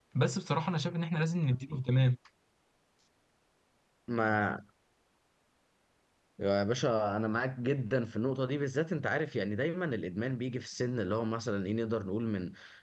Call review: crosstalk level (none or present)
none